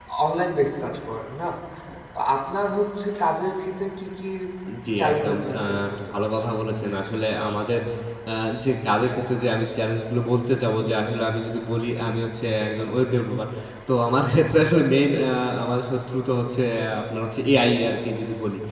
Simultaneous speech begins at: 5.0 s

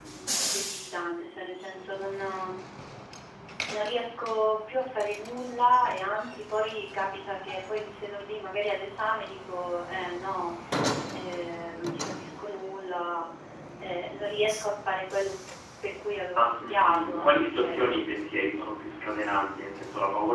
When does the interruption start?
16.4 s

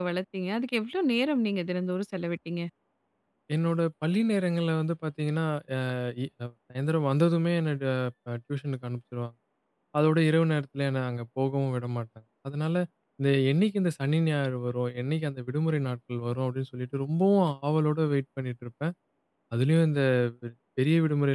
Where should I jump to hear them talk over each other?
none

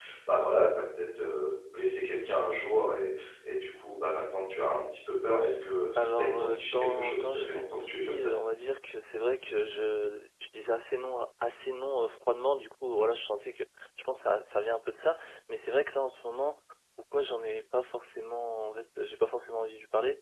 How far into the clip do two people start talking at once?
6.0 s

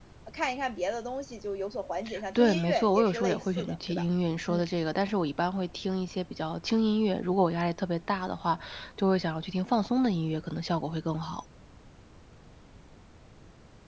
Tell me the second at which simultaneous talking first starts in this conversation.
2.4 s

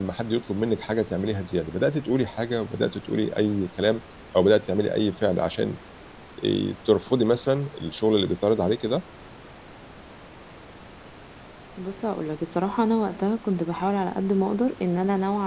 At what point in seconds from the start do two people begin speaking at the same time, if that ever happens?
none

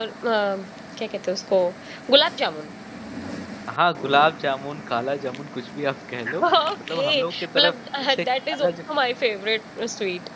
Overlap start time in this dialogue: 6.3 s

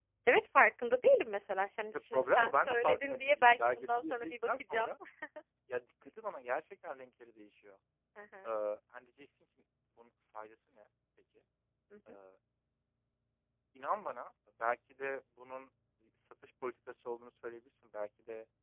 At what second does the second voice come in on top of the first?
1.9 s

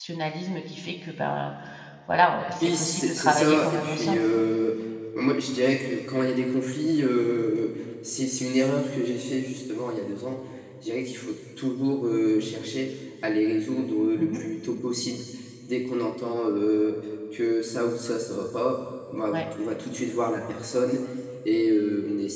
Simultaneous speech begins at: 2.6 s

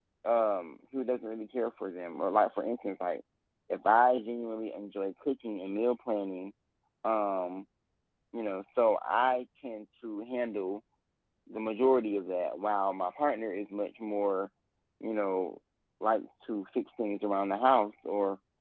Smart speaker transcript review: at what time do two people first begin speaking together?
none

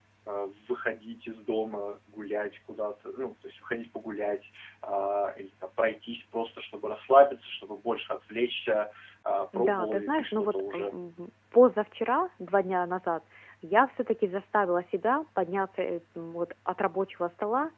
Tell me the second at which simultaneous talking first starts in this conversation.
9.5 s

